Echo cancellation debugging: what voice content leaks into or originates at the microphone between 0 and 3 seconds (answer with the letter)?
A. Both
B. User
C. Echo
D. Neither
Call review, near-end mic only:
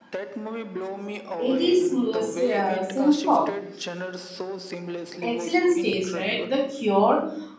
A